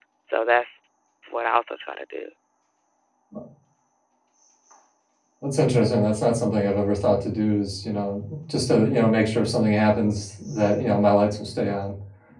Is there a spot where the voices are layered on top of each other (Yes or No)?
No